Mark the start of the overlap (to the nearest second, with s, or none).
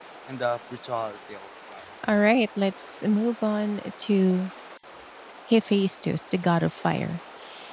none